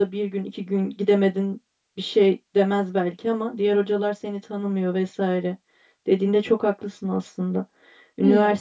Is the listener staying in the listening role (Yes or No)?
Yes